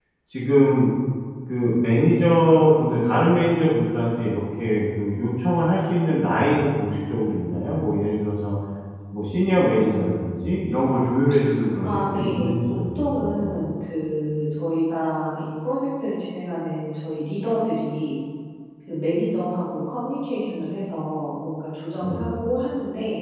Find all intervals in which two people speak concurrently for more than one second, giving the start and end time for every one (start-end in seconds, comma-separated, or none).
11.8-13.5